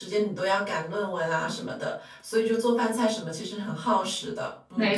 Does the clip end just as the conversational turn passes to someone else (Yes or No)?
Yes